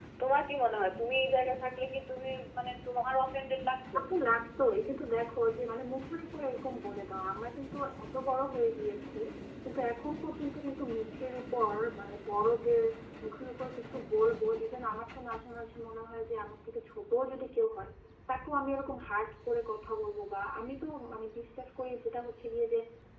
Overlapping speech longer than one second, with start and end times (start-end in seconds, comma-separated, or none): none